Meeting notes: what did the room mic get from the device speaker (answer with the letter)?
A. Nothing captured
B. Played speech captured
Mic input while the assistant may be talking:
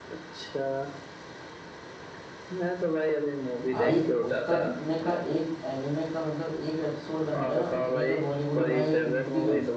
B